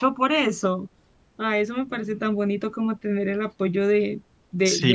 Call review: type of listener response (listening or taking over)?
taking over